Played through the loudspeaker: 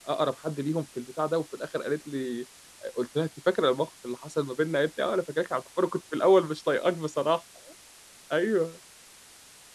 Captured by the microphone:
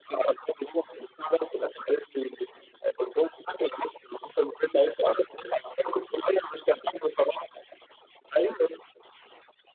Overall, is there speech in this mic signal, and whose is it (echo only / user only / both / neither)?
echo only